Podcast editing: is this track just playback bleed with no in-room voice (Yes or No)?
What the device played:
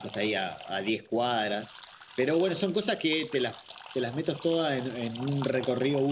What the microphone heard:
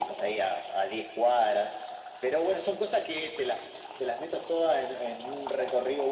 Yes